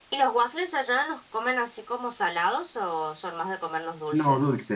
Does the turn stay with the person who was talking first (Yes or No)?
No